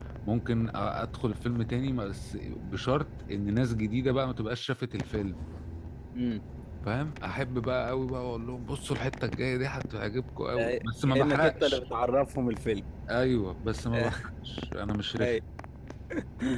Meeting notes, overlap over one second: present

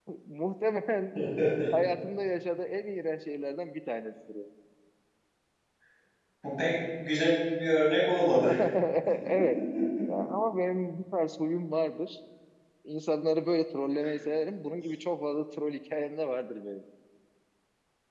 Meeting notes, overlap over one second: none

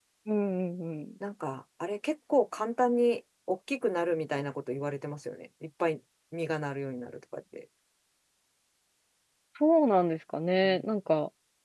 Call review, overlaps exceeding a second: none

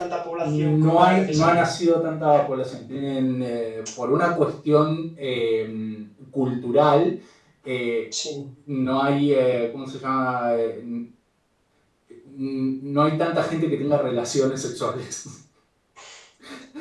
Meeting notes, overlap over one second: present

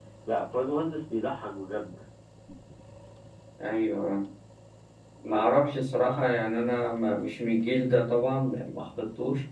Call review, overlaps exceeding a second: none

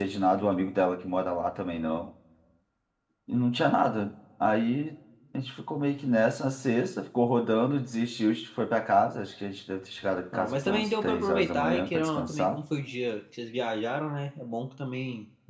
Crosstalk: present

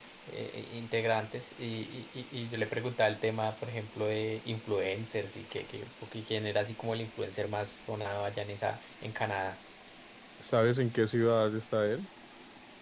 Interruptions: none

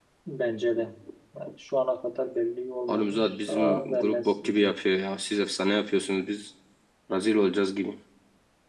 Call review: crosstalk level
present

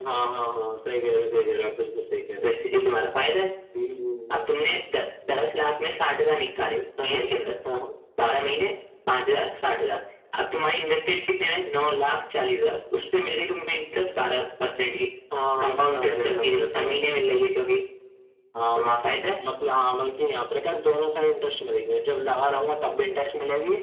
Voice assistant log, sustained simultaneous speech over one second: present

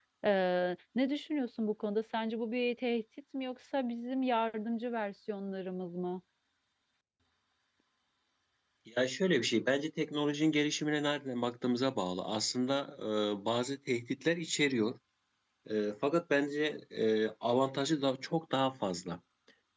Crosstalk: none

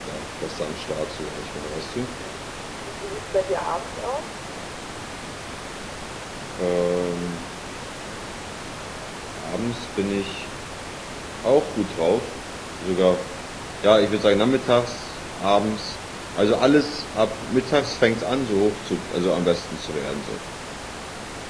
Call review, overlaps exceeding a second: none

